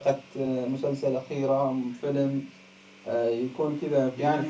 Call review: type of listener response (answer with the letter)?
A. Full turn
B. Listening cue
A